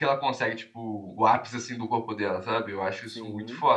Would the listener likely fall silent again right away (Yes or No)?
Yes